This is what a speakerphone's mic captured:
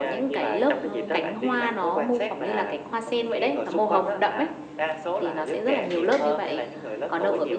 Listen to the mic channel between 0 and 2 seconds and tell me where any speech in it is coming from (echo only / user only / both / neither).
echo only